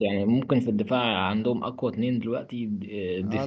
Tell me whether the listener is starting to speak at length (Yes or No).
Yes